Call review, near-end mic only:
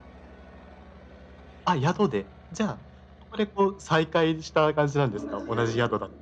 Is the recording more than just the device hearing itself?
Yes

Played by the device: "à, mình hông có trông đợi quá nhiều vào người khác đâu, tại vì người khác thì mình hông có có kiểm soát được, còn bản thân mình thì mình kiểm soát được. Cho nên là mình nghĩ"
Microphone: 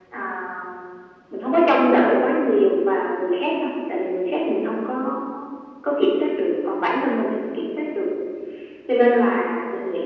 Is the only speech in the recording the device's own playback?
Yes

